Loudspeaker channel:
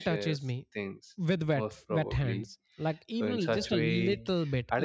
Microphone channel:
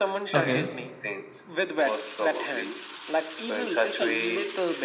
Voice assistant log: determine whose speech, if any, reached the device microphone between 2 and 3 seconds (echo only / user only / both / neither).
echo only